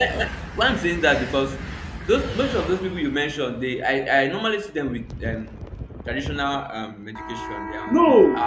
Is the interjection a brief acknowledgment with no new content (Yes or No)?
No